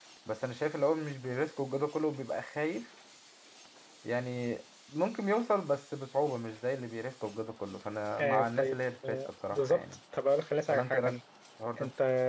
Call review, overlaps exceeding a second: present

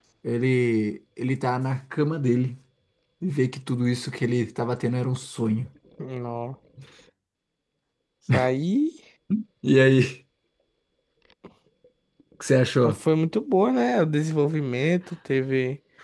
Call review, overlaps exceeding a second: none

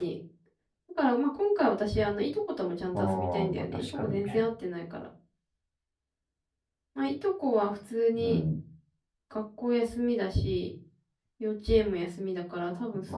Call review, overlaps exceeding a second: present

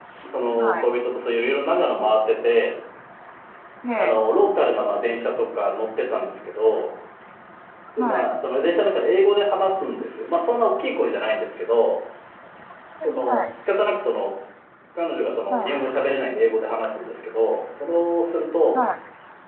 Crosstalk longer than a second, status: none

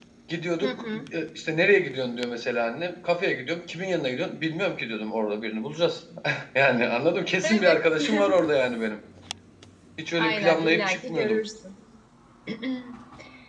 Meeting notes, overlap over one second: present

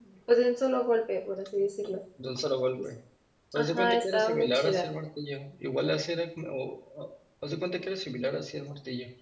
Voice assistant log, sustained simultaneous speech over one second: present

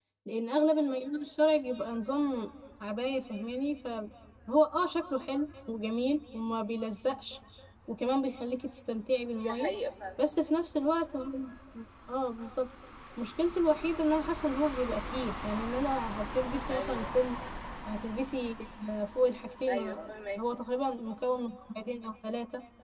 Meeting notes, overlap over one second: none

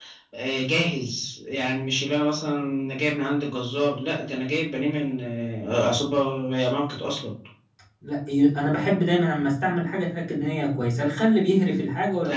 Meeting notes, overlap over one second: none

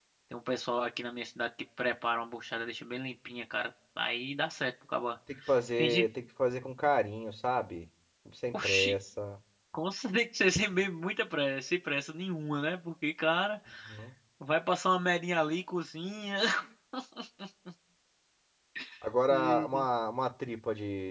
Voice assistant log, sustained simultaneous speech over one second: none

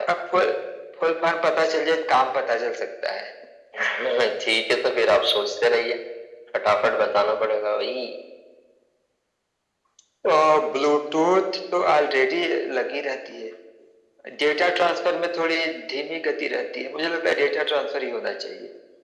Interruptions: none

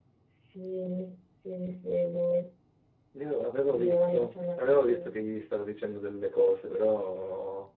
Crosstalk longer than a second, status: present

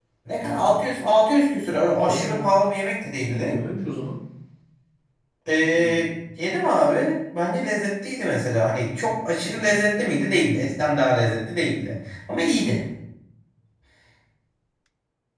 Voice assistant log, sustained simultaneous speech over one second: none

